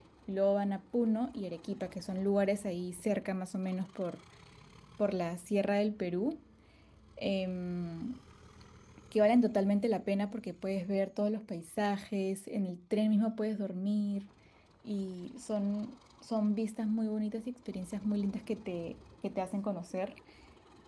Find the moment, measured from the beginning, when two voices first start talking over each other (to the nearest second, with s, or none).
none